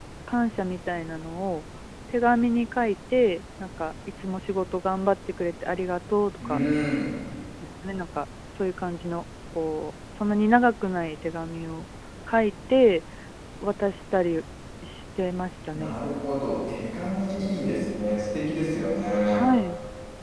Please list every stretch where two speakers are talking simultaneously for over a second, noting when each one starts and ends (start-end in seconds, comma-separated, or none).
none